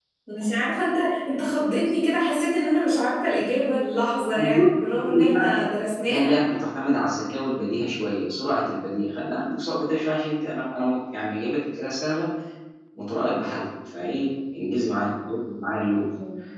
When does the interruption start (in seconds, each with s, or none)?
4.4 s